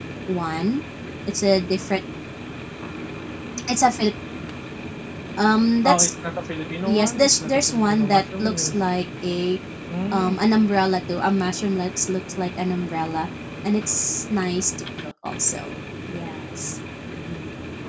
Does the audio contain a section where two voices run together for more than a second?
Yes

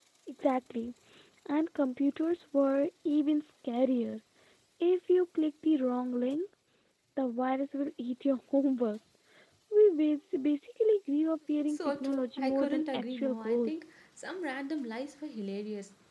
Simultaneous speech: Yes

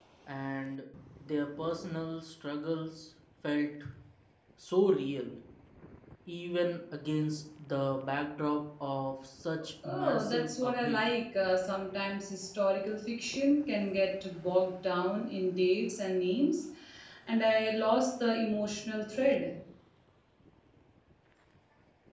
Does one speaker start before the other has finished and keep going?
Yes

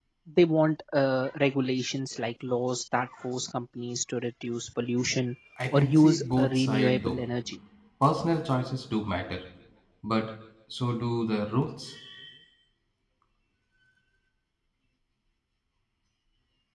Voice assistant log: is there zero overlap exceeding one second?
No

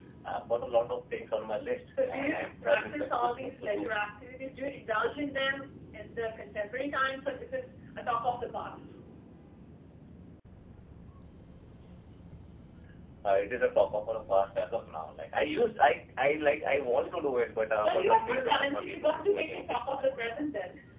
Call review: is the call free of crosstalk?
No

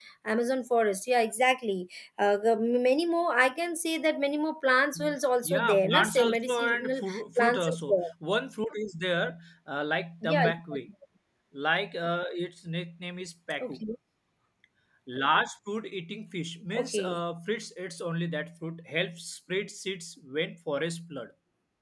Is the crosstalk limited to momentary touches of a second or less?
No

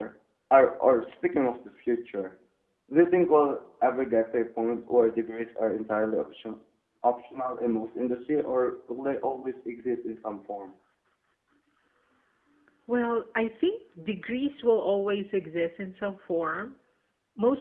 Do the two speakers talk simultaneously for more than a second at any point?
No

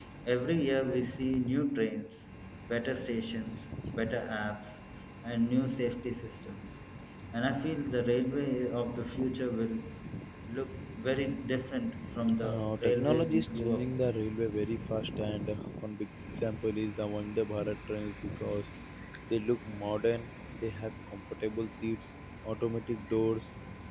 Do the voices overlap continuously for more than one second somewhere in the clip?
Yes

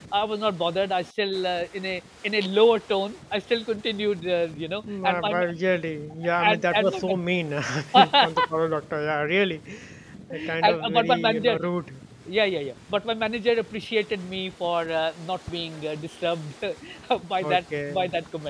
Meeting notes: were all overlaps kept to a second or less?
No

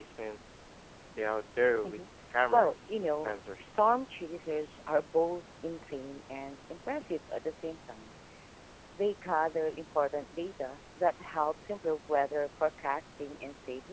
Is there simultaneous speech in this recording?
Yes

